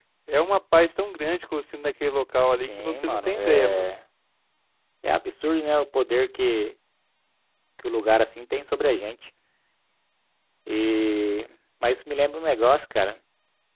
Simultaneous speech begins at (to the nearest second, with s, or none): 3 s